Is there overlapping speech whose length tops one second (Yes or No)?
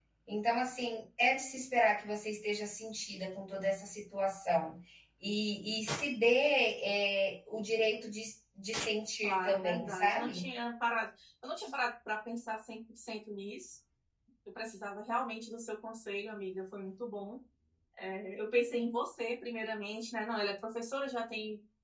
Yes